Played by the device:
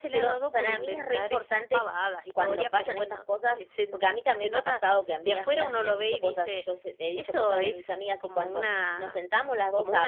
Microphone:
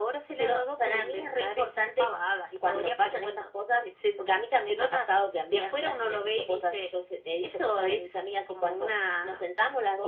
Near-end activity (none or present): none